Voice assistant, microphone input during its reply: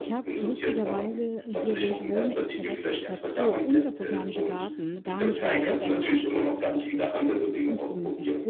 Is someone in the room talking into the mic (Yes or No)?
Yes